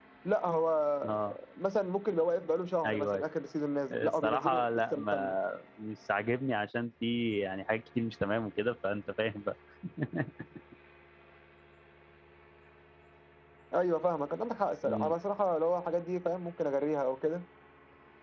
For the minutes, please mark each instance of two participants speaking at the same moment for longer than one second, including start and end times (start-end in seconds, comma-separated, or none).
4.0-5.3